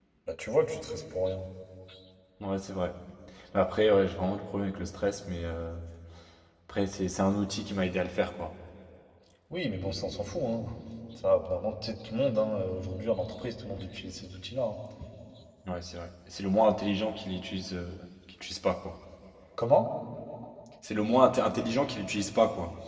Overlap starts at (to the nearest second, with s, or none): none